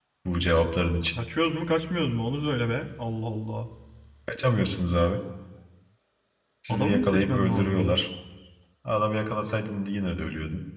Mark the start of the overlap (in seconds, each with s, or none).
6.7 s